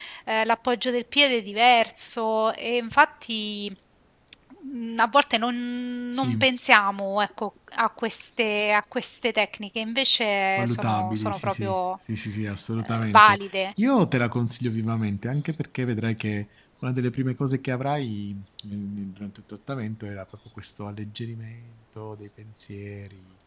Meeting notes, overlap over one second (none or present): present